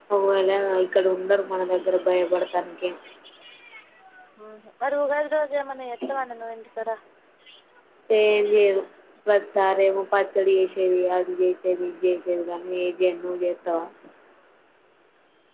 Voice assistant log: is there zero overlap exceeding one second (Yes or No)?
Yes